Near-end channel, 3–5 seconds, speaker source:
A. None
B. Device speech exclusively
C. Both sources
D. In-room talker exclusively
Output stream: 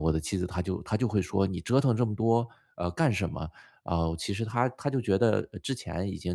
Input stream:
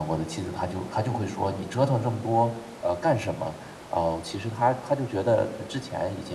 B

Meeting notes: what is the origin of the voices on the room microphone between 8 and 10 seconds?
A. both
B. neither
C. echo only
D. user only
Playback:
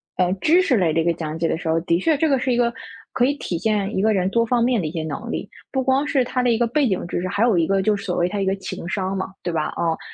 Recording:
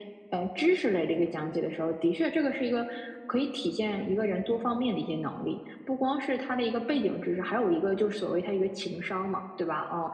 C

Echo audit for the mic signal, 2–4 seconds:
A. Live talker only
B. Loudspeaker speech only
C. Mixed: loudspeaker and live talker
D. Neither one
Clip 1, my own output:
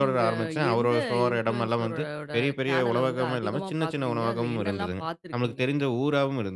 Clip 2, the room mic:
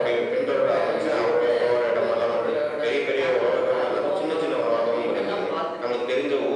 B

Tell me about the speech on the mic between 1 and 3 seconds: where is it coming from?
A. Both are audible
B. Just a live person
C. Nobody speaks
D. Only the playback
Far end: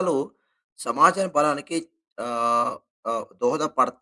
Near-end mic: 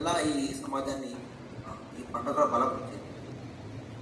B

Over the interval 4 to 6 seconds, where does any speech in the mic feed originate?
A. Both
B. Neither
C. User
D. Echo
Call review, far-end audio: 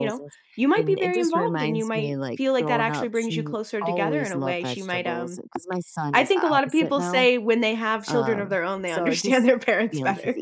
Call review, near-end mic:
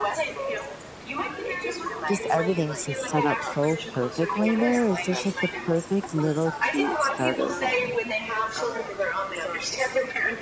A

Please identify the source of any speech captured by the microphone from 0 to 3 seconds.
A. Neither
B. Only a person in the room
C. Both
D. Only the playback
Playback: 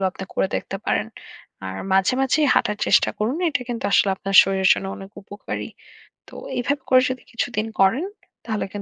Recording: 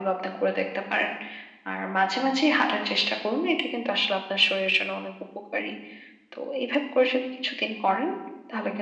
D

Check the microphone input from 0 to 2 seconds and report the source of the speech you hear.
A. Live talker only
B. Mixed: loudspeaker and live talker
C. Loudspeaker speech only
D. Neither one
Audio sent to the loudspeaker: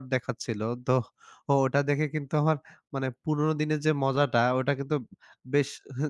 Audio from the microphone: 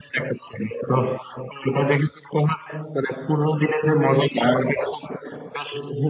C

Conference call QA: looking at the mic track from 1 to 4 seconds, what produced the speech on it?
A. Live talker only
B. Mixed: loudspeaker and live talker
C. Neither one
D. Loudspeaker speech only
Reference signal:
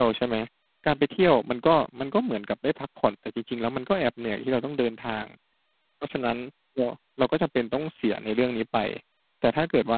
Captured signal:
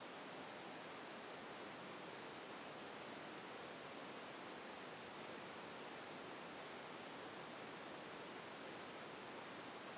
C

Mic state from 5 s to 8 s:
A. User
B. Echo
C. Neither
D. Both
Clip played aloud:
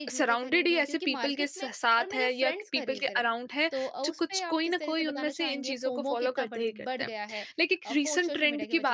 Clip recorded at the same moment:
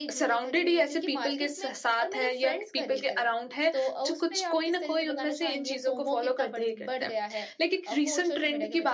B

